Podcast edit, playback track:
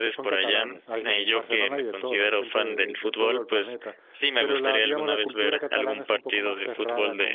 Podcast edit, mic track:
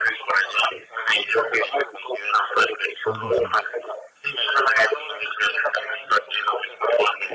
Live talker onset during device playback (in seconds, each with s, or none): 3.0 s